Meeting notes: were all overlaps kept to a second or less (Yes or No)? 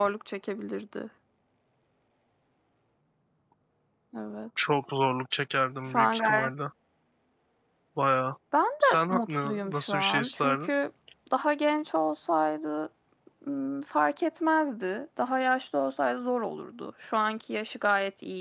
No